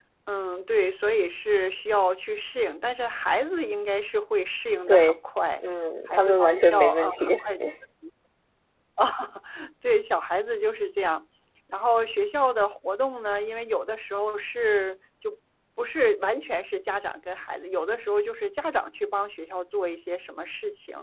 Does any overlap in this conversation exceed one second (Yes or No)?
Yes